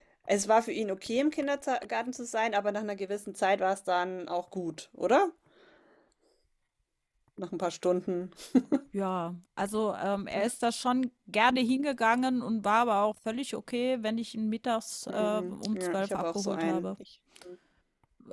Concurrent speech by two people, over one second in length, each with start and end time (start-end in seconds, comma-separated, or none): 15.1-16.9